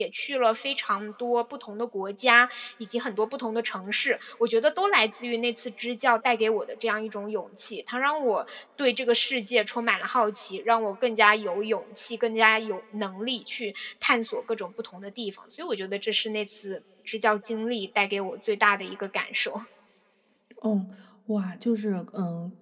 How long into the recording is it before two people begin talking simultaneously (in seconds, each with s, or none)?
none